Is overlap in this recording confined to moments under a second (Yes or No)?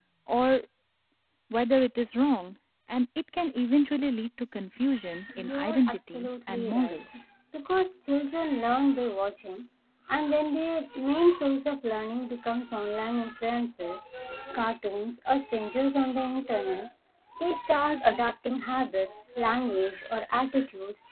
No